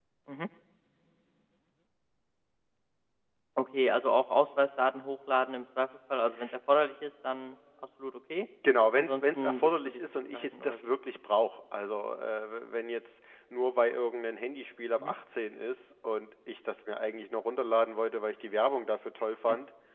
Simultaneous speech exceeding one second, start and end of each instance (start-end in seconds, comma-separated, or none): 9.0-10.9